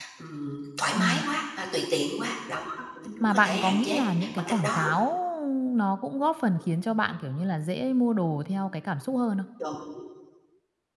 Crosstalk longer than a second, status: present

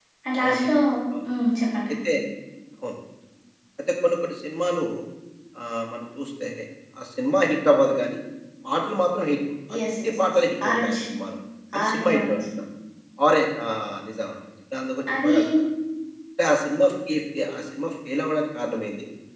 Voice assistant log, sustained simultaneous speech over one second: present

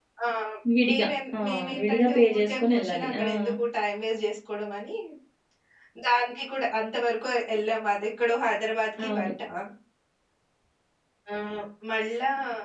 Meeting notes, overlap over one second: present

